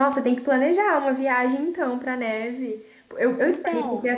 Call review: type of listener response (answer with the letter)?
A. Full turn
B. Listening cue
B